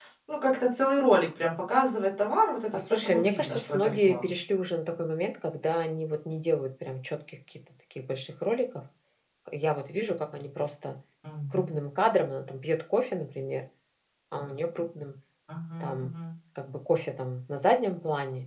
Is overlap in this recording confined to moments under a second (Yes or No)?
No